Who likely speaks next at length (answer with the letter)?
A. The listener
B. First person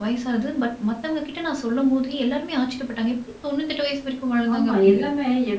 A